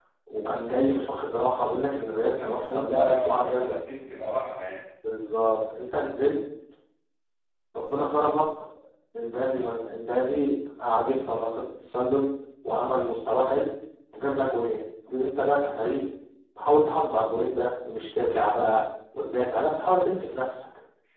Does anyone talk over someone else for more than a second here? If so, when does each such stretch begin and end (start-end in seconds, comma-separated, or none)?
2.3-3.8